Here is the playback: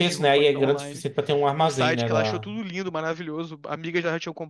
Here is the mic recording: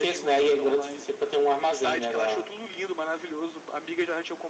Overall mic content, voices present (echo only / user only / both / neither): echo only